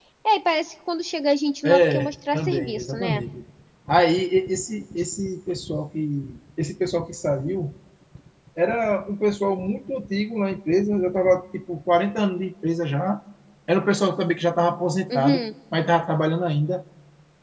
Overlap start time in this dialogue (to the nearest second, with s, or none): 2 s